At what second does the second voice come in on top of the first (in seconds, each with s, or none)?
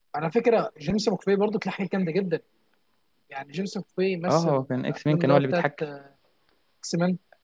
4.3 s